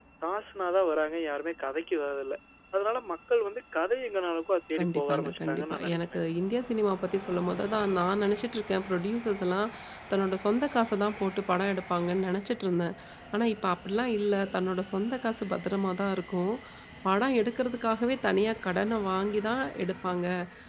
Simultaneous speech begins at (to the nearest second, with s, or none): 5 s